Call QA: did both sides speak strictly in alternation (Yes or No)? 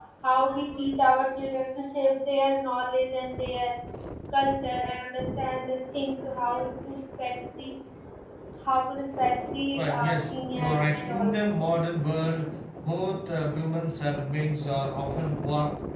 No